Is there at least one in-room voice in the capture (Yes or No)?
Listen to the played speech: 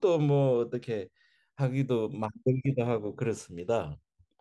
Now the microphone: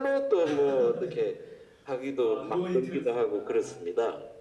Yes